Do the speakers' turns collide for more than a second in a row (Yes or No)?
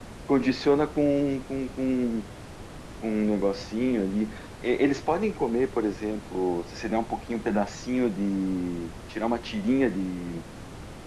No